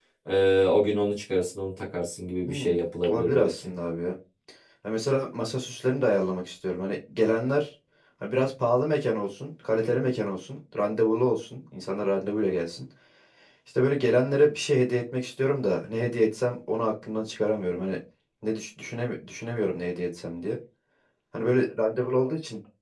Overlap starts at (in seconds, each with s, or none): 2.5 s